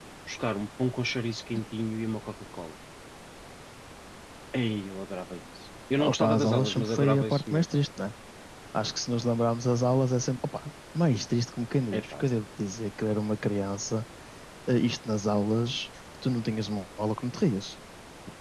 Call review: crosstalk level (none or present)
present